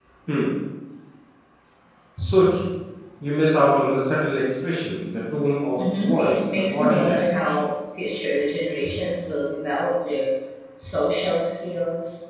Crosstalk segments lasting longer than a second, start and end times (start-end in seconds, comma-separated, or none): 6.0-7.6